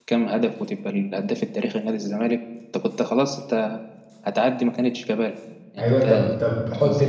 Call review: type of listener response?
taking over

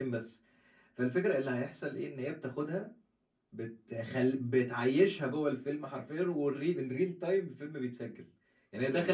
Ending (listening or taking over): listening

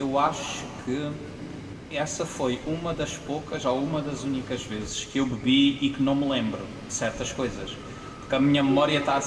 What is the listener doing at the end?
taking over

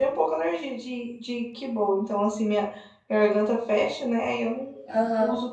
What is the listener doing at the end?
taking over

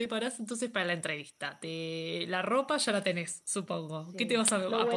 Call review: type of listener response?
taking over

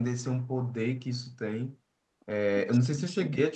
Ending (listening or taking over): listening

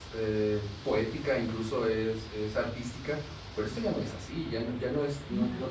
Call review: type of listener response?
listening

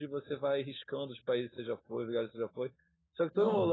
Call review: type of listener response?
listening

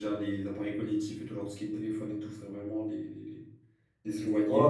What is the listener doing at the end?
taking over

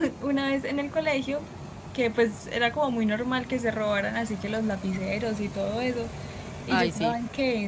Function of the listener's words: listening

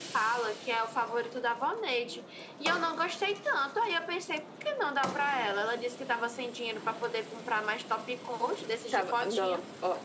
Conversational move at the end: taking over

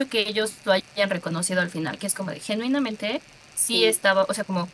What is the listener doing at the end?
listening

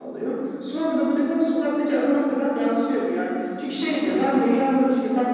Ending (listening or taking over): listening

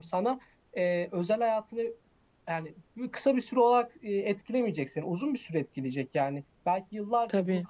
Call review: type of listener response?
listening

